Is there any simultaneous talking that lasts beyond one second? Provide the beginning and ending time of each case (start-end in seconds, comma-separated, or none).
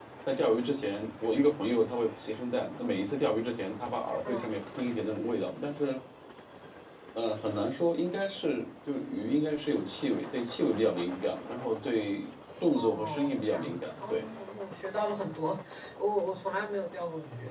12.8-14.2